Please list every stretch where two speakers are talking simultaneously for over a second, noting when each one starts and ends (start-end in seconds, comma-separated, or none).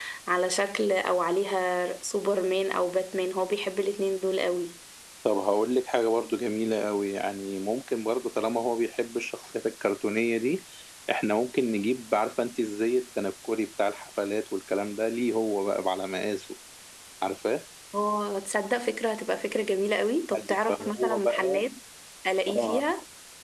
20.3-21.6